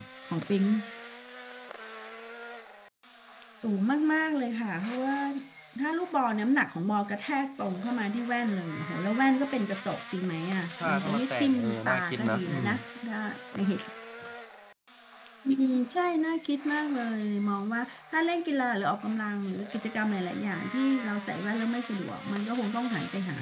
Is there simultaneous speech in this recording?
Yes, from 10.8 s

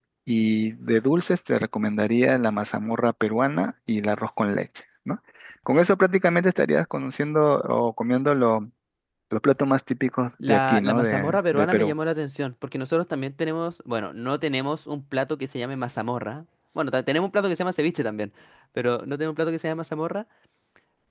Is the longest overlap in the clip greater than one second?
Yes, from 10.4 s

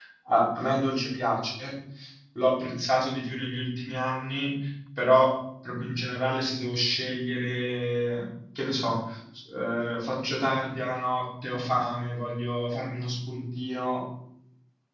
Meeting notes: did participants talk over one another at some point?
No

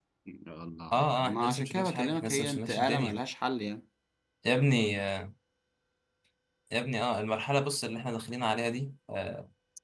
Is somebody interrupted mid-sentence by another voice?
Yes, from 0.9 s

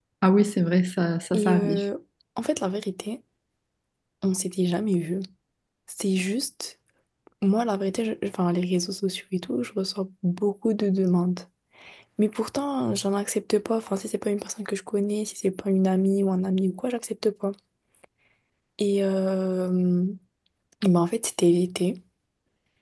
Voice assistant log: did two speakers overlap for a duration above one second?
No

